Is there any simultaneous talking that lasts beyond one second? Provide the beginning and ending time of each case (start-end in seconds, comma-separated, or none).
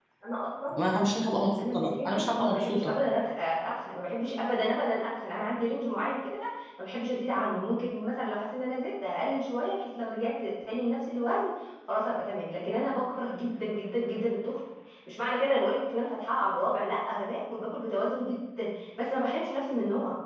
1.6-2.9